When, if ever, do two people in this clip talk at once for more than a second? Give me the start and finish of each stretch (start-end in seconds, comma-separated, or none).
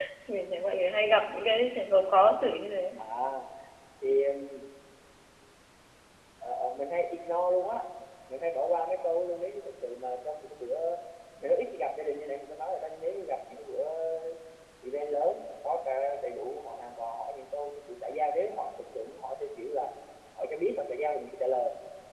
none